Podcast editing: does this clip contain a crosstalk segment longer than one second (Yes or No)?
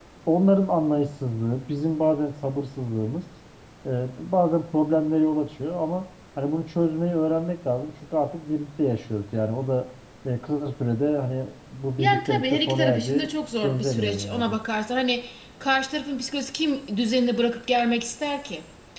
Yes